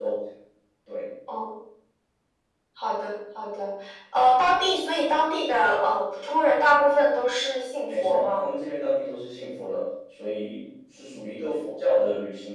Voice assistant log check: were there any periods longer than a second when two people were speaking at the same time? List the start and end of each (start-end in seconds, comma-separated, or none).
none